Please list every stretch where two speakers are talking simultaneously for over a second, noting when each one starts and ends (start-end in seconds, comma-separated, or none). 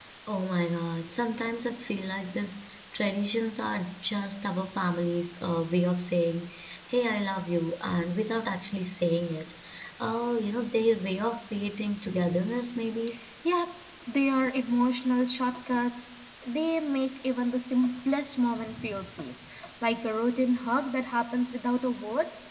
none